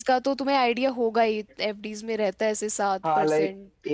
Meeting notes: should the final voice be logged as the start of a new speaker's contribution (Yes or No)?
Yes